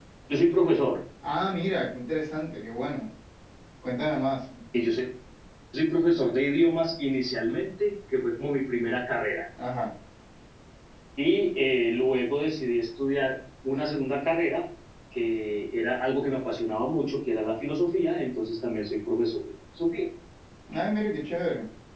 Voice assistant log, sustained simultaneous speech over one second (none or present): none